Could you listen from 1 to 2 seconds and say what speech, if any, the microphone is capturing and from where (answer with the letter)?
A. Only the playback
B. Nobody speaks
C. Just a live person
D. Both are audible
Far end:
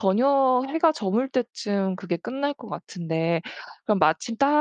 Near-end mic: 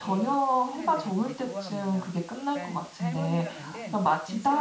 D